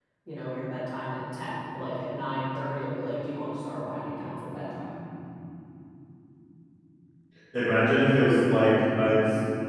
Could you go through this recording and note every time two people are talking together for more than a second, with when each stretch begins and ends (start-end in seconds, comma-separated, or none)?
none